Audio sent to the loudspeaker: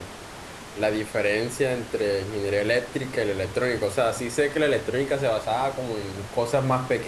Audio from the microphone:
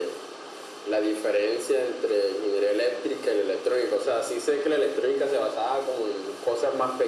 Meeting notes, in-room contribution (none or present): none